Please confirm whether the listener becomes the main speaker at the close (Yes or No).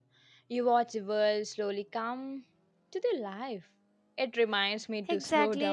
Yes